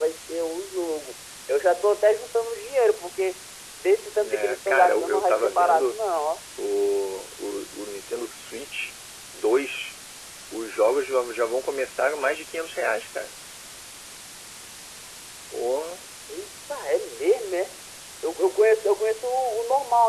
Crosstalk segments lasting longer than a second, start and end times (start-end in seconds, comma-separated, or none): 4.2-5.9